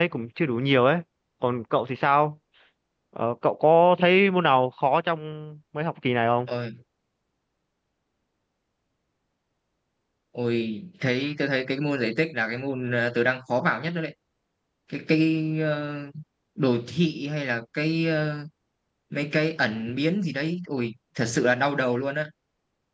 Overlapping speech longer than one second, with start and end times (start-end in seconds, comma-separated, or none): none